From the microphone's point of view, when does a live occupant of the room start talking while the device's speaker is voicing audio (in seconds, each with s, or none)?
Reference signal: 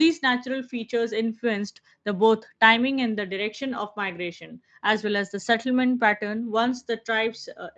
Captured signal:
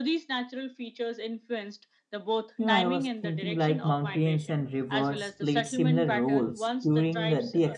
2.6 s